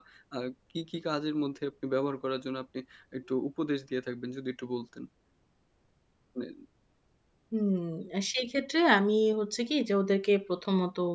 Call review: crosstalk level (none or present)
none